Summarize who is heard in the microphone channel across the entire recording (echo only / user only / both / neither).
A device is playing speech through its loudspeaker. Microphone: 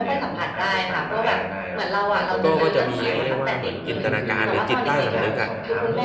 both